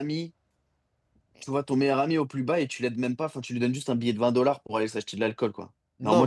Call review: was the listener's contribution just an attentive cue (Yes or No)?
No